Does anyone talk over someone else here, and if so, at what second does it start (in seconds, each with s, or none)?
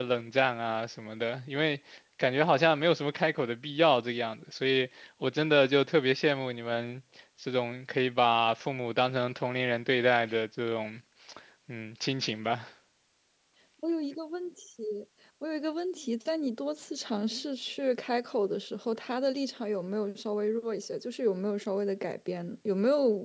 none